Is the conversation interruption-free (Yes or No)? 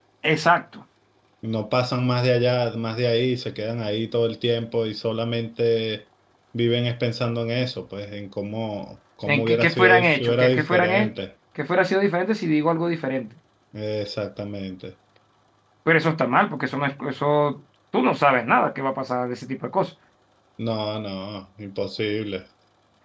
No